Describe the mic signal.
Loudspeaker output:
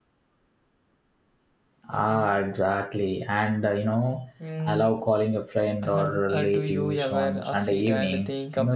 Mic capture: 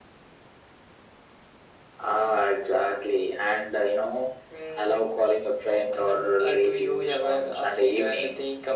echo only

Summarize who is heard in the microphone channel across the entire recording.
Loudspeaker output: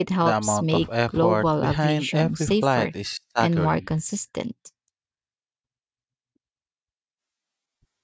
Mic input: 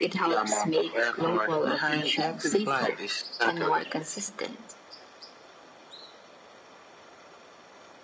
echo only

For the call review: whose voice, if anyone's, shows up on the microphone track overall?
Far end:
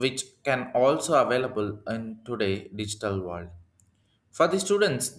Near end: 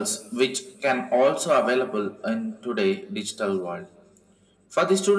echo only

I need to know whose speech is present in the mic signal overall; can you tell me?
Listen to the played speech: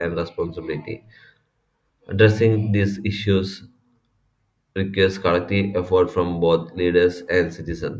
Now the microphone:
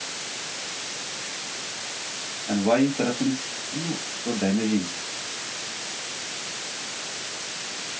user only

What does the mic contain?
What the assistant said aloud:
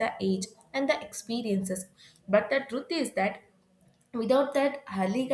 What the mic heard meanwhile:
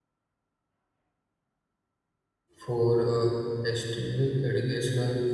user only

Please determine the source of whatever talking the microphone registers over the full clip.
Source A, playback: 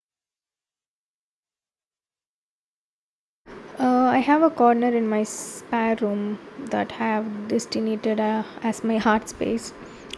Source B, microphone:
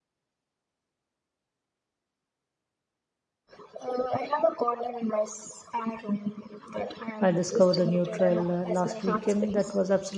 both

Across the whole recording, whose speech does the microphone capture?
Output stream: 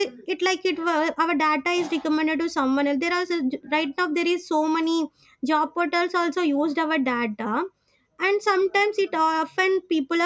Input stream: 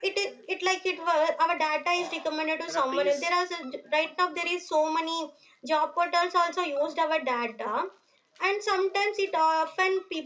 both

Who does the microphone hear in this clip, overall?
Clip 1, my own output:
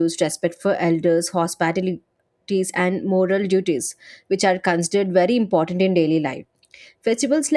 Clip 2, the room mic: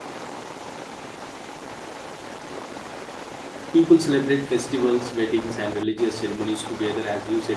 user only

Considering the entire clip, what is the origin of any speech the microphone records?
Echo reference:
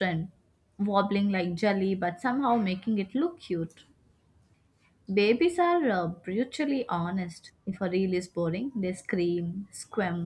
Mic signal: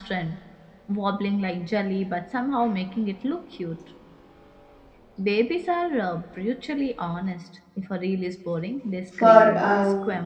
both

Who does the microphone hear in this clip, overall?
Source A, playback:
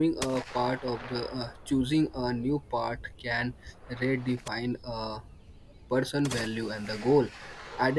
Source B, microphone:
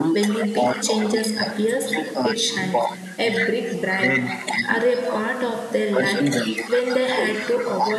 both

